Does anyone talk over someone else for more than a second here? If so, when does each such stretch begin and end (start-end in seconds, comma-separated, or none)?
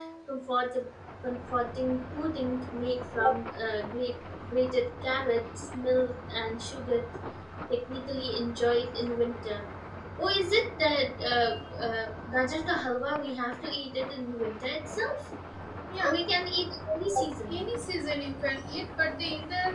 none